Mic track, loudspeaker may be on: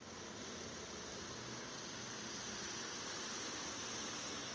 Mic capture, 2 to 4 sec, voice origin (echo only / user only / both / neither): neither